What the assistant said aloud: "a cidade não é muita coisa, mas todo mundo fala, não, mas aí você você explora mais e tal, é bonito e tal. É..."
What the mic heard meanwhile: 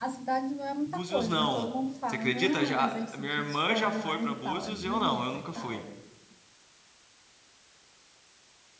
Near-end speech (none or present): present